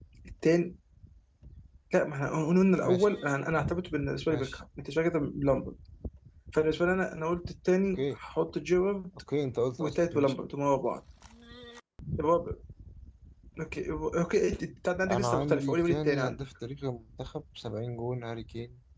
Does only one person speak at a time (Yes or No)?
No